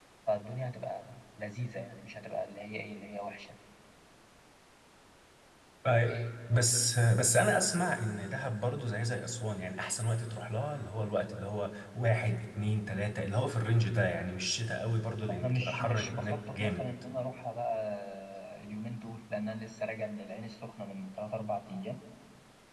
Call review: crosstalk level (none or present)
present